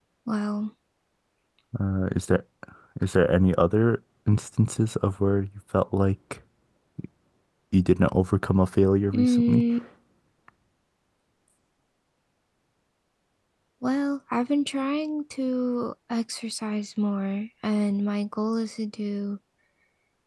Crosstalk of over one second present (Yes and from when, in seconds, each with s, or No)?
No